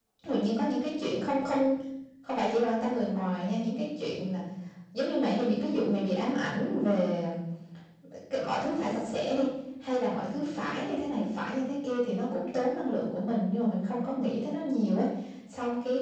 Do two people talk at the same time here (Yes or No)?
No